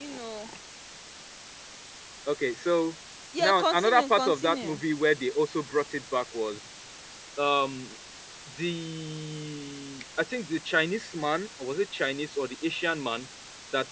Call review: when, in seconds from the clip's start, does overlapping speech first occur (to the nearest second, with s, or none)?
3 s